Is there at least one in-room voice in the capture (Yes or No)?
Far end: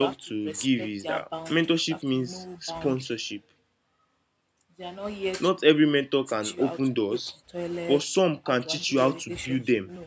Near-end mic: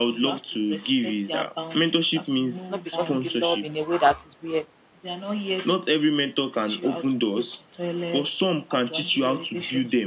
Yes